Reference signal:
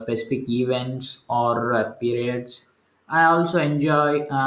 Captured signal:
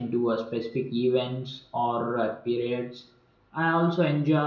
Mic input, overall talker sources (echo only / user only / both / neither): echo only